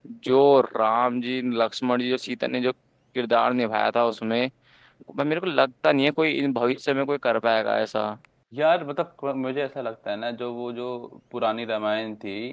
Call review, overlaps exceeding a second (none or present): none